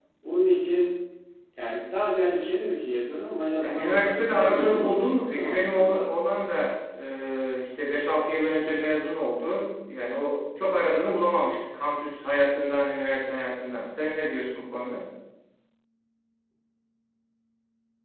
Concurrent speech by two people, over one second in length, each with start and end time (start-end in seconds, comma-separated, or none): 3.6-6.1